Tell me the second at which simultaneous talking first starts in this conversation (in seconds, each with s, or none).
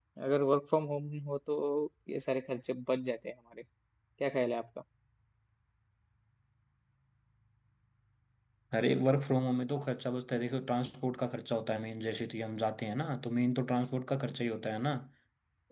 none